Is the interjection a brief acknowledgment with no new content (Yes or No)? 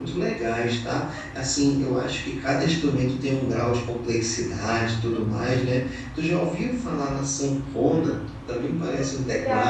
Yes